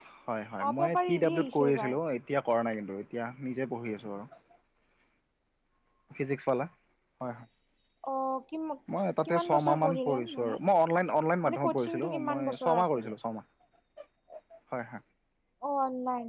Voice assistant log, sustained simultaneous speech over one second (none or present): present